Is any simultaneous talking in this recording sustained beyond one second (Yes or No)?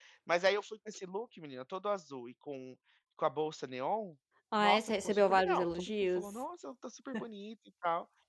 Yes